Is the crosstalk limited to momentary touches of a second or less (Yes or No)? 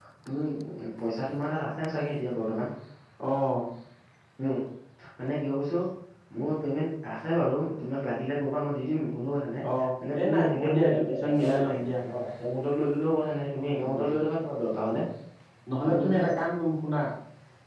No